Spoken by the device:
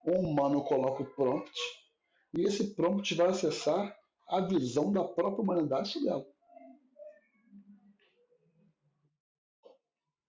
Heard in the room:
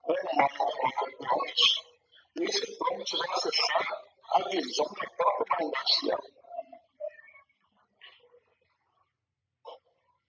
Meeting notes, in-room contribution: none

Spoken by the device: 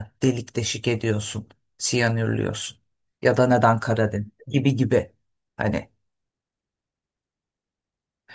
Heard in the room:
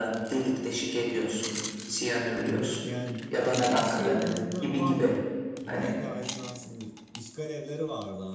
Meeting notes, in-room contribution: present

